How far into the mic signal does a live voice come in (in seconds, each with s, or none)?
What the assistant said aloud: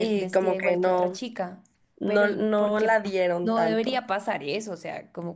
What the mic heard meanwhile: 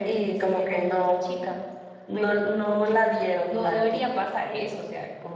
none